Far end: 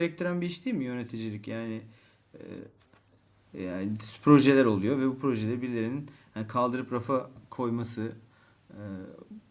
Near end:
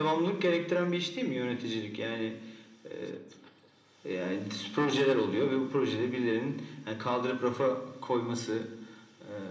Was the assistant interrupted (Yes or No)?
No